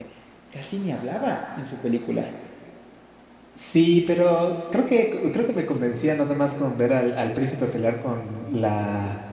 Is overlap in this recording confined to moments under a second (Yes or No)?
Yes